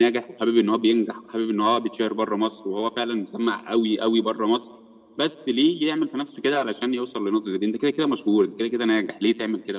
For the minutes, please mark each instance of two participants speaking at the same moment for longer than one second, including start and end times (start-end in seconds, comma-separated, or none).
none